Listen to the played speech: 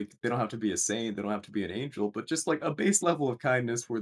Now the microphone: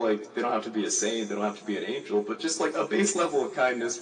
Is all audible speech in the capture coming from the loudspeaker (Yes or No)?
Yes